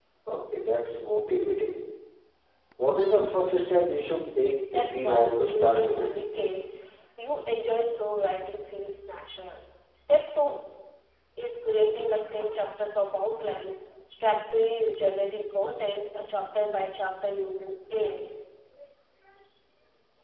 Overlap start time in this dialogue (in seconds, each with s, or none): 4.5 s